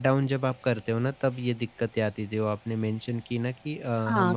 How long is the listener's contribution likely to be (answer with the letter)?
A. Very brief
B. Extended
B